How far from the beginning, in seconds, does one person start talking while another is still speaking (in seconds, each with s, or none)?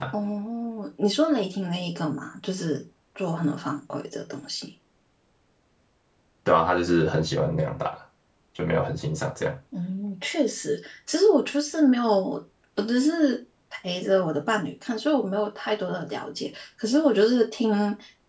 none